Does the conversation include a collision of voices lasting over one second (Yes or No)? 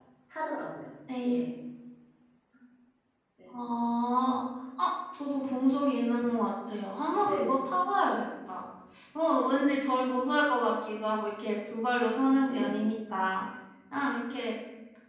No